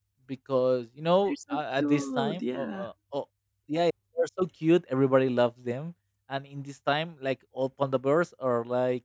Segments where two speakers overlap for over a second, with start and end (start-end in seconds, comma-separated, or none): 1.3-2.9